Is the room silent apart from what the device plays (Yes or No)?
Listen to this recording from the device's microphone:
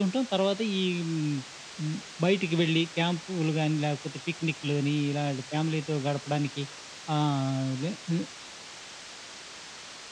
Yes